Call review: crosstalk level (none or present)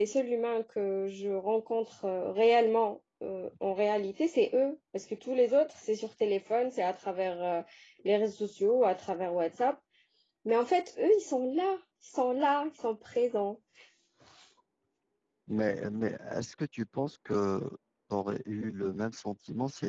none